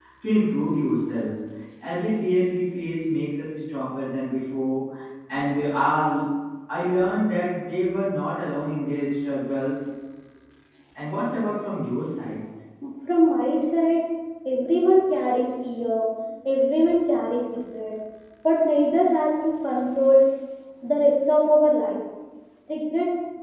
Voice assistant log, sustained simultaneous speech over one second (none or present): none